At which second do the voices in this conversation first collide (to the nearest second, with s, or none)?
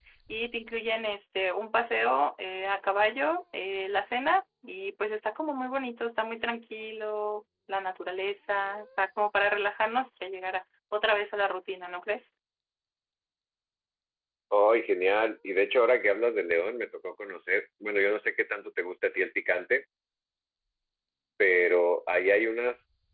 none